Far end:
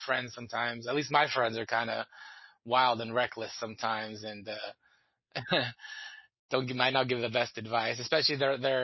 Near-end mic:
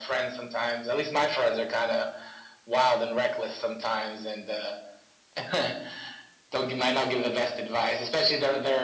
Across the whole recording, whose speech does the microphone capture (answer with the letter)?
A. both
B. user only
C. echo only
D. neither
C